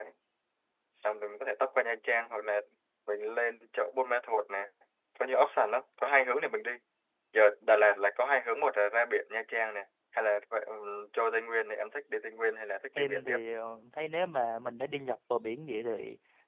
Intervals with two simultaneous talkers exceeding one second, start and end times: none

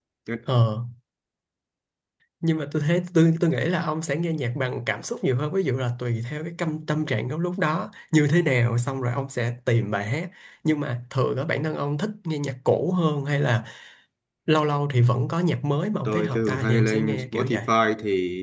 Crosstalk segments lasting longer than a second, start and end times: 16.1-17.6

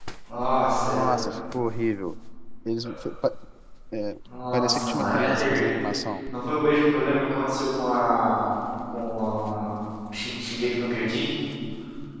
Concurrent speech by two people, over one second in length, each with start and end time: 4.5-5.7

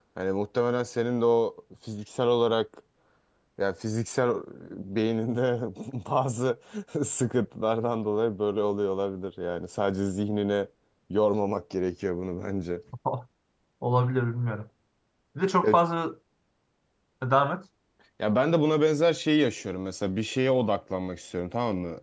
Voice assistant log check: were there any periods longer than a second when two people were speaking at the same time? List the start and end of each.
none

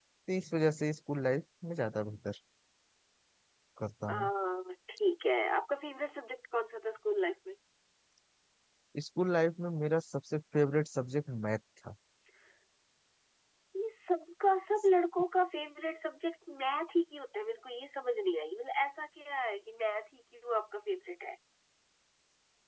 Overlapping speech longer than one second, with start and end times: none

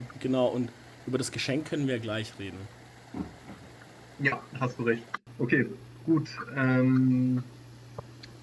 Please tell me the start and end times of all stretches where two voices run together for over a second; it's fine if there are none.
none

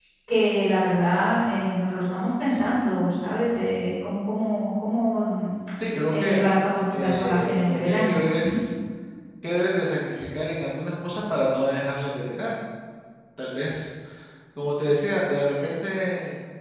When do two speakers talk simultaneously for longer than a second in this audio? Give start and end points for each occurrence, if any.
6.9-8.6

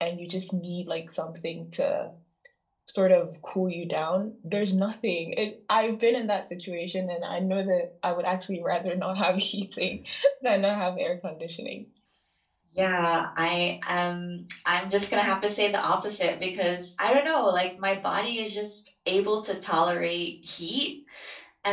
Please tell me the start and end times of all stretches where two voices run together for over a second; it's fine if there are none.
none

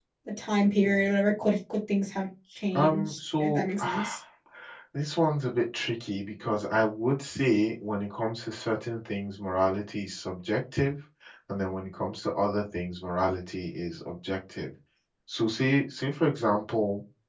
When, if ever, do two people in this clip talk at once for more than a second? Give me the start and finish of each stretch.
2.8-4.2

